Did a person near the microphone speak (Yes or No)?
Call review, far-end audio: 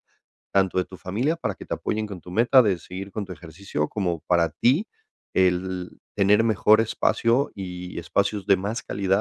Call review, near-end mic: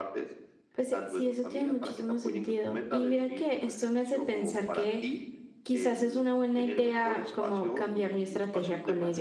Yes